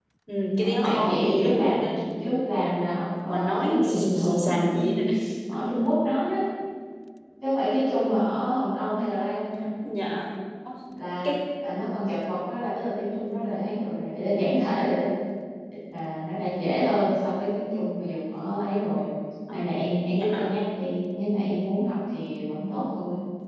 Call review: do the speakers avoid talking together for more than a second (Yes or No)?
No